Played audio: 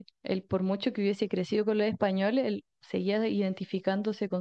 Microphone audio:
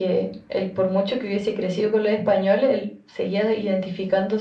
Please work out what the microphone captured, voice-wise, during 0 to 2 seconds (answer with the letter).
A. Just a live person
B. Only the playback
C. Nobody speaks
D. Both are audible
B